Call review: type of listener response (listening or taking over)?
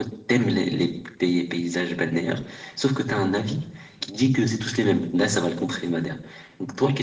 taking over